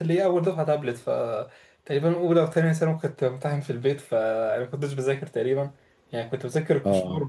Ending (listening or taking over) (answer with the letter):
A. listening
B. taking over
A